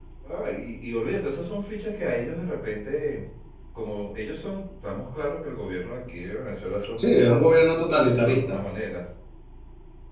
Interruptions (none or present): present